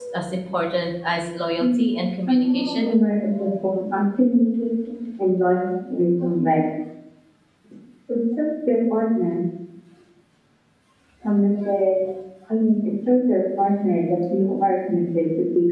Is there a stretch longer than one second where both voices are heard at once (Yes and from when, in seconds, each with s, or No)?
Yes, from 1.6 s